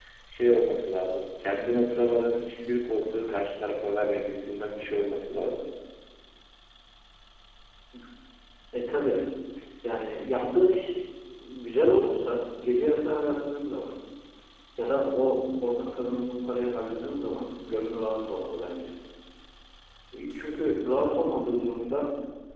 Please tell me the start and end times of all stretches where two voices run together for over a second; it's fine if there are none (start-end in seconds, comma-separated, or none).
none